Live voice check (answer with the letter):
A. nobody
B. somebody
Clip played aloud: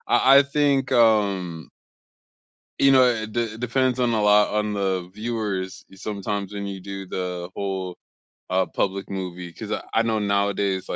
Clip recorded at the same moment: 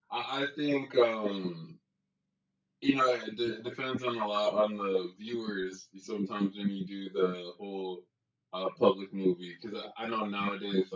A